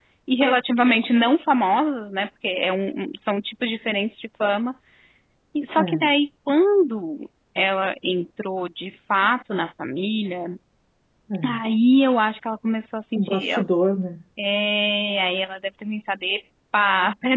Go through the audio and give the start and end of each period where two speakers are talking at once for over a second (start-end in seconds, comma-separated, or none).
none